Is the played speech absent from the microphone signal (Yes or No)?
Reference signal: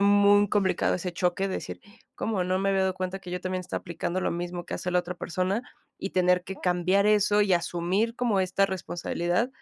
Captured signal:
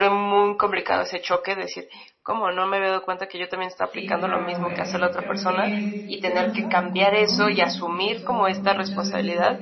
No